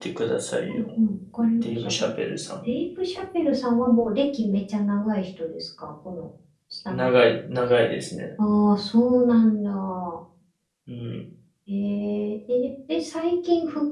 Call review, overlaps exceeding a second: none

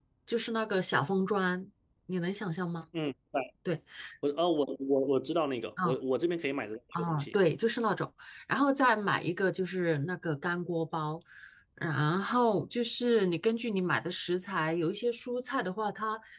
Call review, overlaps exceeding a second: none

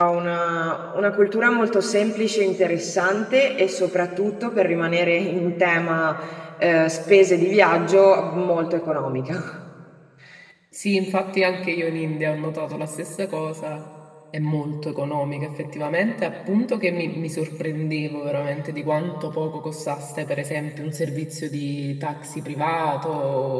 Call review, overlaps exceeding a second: none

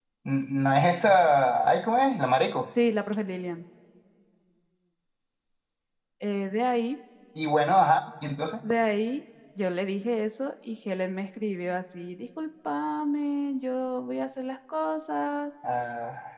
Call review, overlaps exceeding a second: none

